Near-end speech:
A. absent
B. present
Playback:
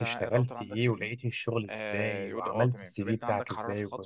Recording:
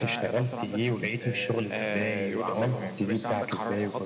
B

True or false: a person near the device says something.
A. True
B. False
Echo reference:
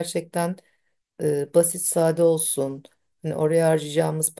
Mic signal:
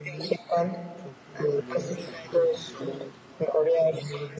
A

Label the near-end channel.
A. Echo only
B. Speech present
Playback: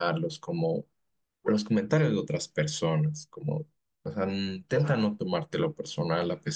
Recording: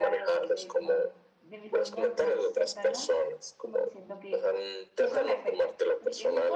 B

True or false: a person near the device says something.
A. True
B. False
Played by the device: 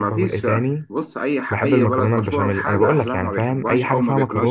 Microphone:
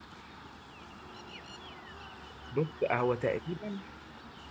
A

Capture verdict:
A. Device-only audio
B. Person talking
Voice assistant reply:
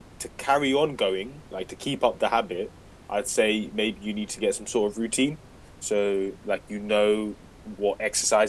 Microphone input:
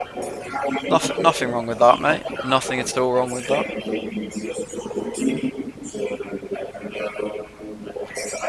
B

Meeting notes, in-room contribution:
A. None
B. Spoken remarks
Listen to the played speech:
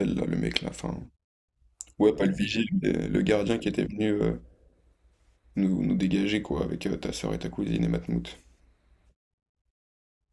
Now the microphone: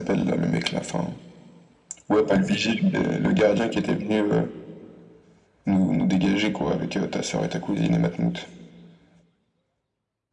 A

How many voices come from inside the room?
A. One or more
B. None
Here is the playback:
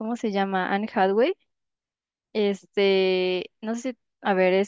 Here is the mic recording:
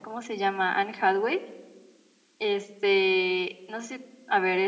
B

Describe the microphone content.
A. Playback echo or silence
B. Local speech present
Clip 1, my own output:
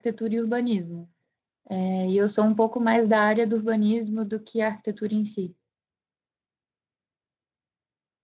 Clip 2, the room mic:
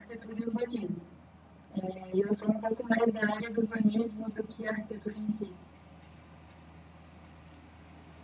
A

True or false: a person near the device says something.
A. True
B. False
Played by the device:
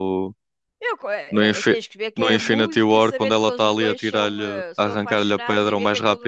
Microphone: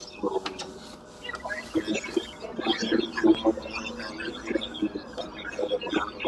B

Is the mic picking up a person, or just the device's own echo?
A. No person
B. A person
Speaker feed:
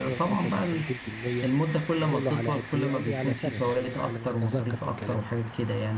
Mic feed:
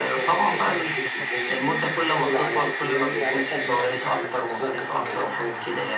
B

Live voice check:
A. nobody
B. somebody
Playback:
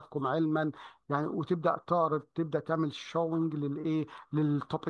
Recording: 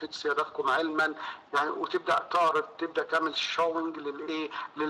A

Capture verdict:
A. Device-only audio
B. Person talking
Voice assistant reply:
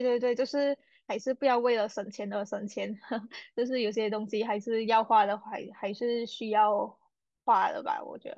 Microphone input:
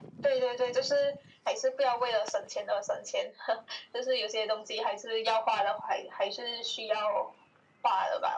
A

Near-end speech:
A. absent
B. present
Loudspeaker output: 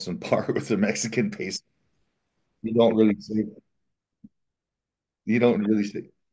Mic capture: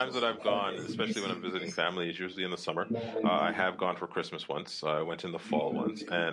B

